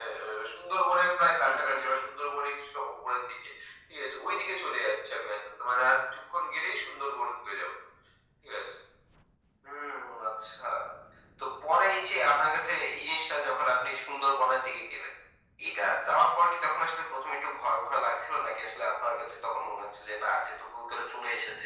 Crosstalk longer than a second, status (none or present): none